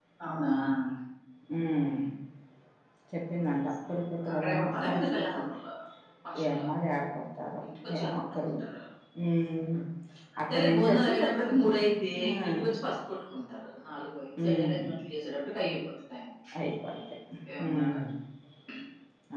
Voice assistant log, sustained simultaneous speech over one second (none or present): present